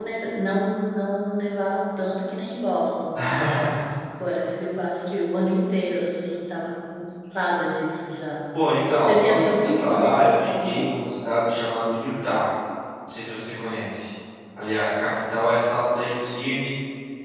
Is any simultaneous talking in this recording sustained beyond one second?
Yes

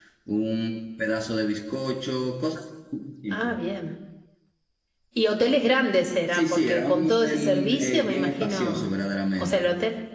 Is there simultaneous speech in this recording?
Yes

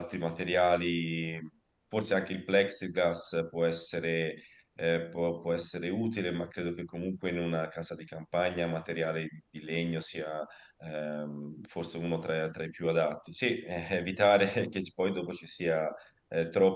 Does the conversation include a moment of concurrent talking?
No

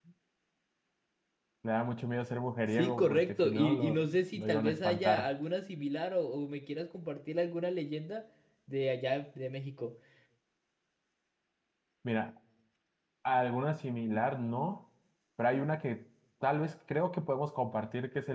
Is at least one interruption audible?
Yes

